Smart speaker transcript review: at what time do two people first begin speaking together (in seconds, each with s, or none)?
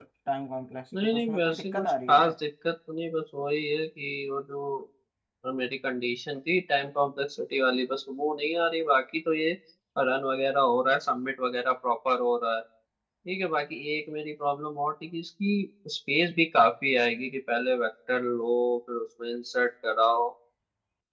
0.9 s